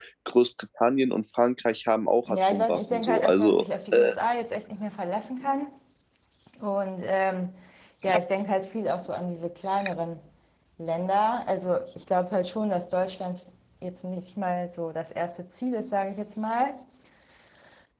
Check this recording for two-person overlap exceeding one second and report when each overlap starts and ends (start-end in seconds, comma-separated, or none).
2.3-4.1